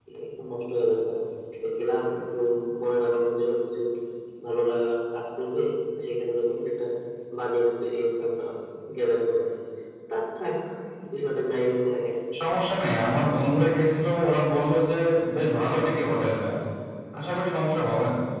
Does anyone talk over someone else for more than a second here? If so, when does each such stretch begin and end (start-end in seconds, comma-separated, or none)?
none